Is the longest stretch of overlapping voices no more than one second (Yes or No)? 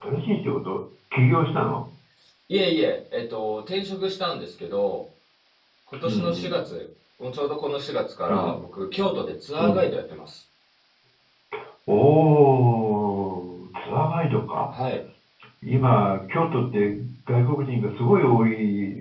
Yes